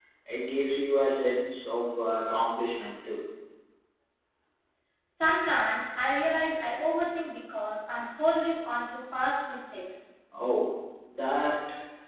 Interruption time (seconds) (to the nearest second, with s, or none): none